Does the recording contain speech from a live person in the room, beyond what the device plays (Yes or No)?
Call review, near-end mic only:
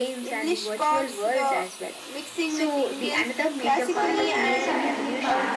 Yes